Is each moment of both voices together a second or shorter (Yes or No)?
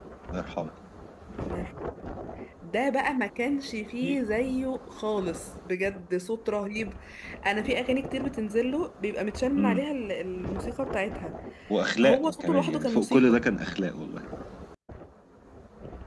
No